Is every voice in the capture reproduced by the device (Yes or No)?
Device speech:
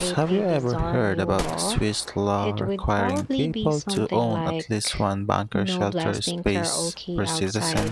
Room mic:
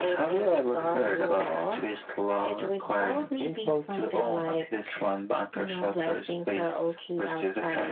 Yes